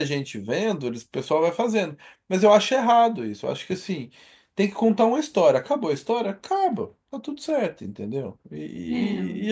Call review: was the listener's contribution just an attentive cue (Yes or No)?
Yes